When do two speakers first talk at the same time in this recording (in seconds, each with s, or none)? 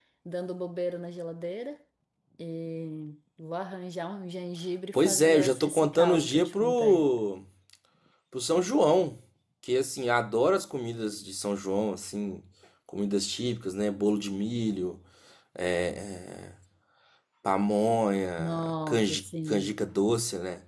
4.9 s